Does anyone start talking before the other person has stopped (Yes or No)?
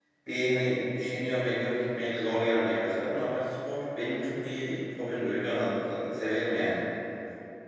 No